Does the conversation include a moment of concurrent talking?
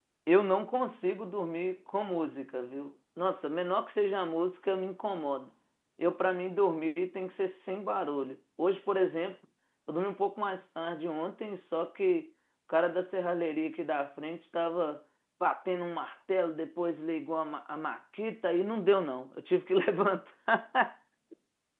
No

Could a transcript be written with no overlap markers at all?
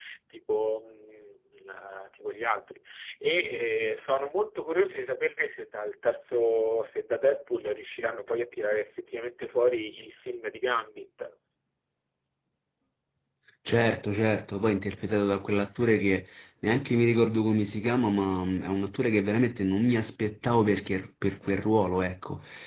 Yes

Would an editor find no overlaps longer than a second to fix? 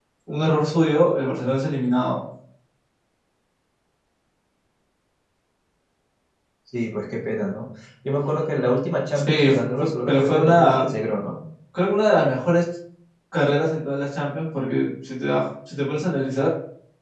No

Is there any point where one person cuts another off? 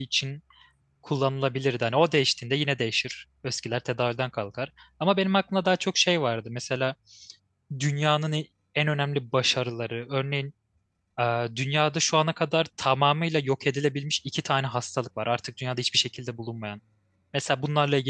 No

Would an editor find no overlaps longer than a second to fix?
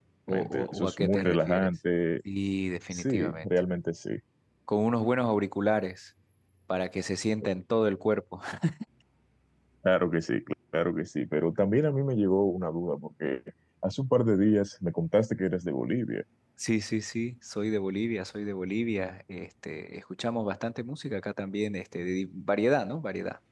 No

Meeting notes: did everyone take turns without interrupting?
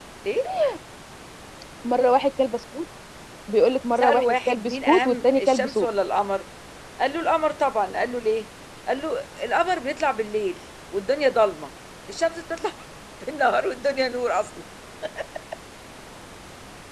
No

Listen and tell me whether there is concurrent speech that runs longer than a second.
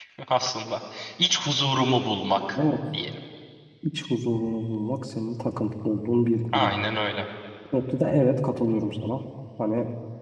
No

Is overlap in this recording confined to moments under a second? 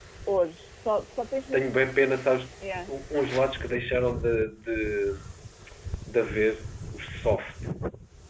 Yes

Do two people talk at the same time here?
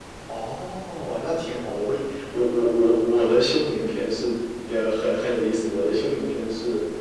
No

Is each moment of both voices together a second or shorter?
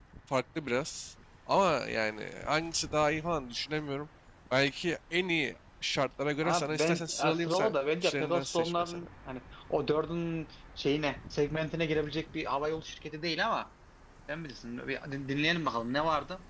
No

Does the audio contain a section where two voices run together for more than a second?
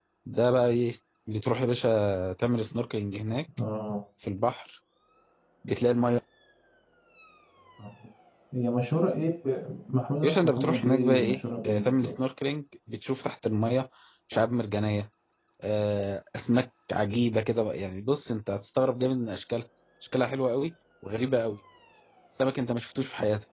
Yes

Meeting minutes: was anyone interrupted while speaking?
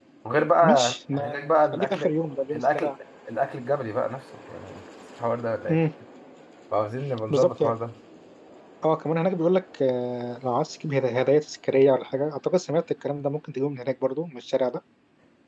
Yes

